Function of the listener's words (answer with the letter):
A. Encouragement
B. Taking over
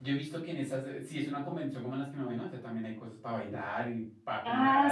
B